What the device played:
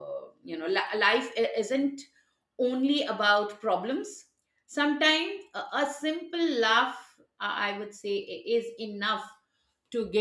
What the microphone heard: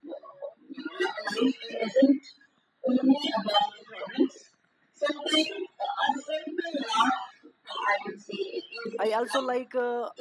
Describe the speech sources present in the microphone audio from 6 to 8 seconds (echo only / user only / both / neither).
echo only